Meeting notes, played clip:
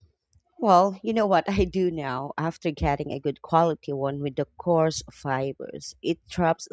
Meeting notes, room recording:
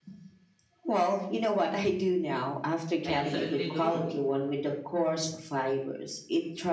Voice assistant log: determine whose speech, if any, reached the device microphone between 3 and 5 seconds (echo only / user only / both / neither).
both